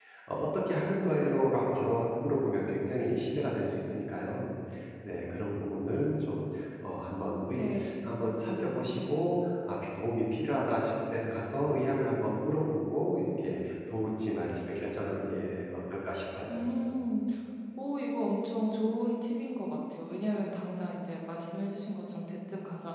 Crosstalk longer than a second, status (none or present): none